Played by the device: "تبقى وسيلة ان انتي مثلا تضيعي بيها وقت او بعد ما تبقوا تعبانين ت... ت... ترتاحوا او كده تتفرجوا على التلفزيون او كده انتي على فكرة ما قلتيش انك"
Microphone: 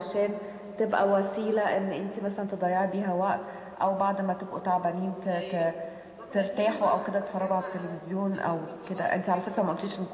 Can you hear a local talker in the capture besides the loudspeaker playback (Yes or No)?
Yes